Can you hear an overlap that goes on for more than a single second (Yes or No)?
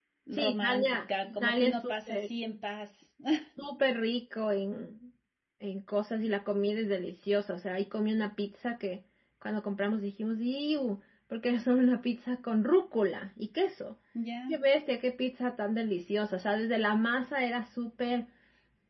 Yes